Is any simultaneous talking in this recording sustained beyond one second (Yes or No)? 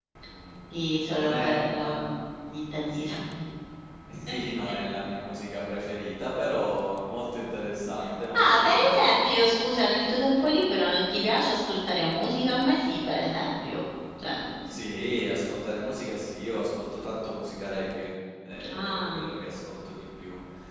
Yes